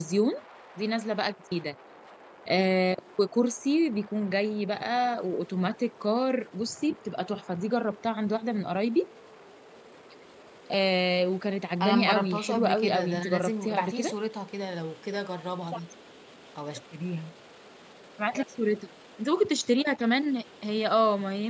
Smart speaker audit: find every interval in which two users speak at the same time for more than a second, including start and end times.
11.8-14.1

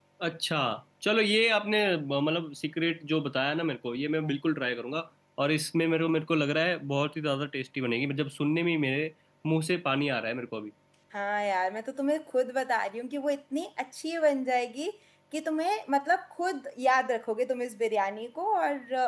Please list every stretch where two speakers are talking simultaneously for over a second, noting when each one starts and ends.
none

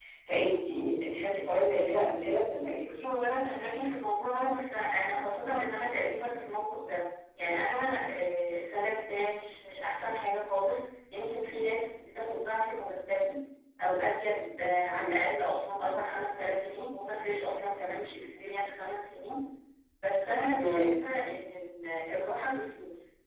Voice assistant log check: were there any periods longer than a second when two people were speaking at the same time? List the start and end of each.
none

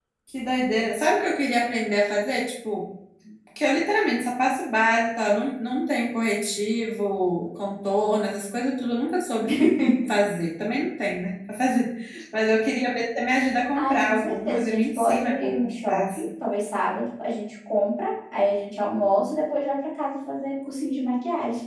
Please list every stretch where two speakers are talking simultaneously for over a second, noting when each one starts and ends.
13.7-16.2

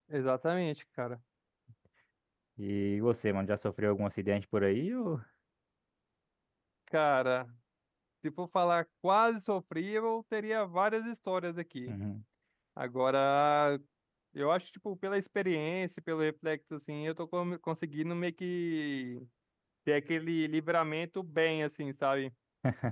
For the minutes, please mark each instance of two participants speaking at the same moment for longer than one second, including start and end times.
none

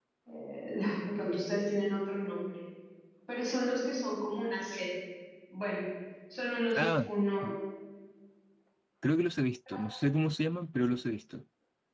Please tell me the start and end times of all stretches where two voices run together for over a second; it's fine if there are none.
none

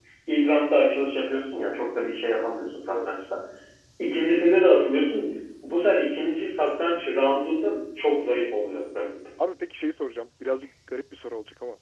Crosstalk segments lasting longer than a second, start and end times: none

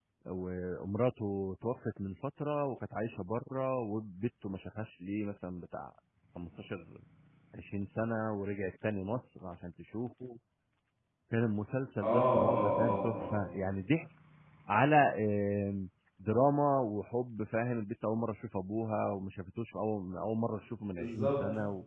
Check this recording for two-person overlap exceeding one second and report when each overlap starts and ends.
12.0-13.4

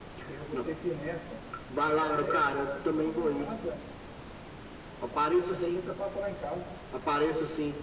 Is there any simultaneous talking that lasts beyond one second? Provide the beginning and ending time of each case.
2.0-3.5

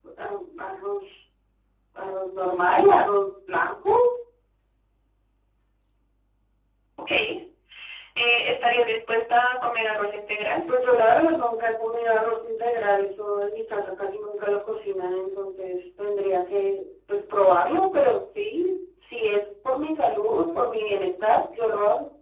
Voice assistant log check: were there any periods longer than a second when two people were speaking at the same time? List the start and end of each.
none

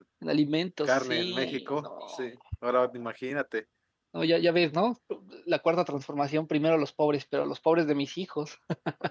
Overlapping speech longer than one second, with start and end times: 0.8-2.3

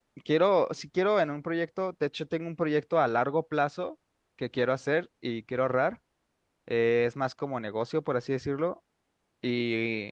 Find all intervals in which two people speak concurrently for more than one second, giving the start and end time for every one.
none

